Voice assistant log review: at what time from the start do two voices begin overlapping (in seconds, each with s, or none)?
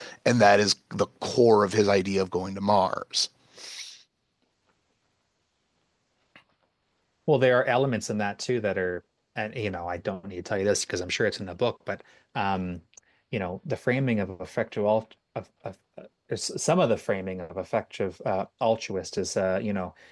none